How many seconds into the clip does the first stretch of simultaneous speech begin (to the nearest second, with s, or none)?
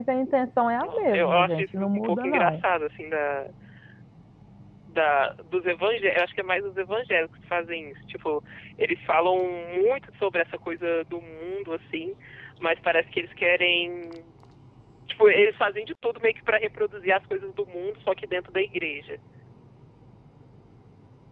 1 s